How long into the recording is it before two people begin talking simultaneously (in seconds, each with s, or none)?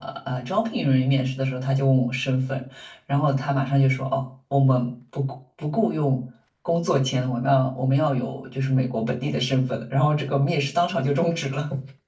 none